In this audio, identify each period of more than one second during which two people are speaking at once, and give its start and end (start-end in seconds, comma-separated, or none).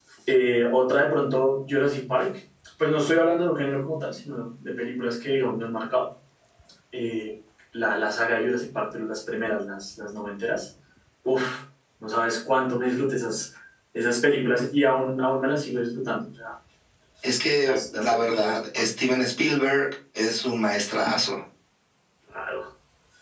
17.6-18.9